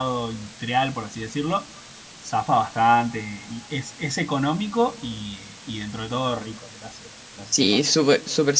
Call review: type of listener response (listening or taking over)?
taking over